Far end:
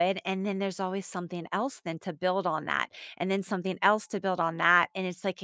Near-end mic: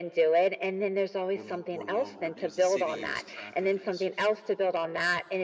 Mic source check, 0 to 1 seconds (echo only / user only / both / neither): echo only